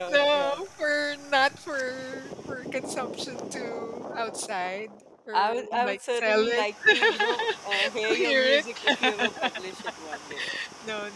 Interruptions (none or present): present